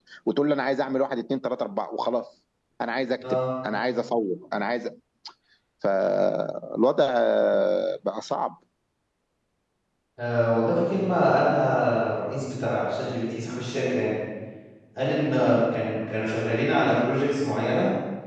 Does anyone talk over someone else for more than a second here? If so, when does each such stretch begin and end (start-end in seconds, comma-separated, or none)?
none